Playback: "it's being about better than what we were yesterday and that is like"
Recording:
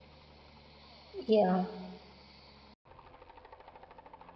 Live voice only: Yeah.

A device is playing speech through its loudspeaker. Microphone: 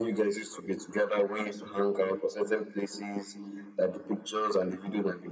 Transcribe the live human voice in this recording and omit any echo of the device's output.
none

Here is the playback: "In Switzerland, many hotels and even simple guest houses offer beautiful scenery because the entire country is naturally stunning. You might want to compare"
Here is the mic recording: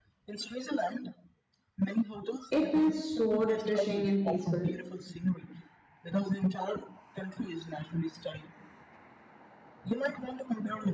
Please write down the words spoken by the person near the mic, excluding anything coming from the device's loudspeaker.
It feels so refreshing and peaceful.

